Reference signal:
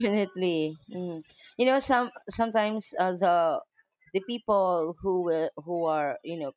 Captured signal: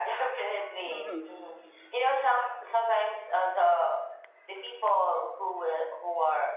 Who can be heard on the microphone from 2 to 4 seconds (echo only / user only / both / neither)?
echo only